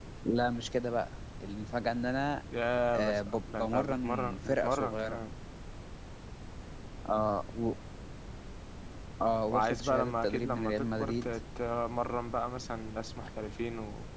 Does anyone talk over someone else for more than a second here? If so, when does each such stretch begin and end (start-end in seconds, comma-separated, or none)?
3.0-5.2, 9.5-11.3